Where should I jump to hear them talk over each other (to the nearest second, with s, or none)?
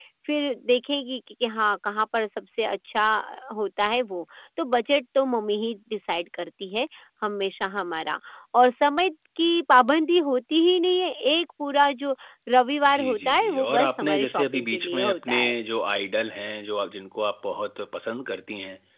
13 s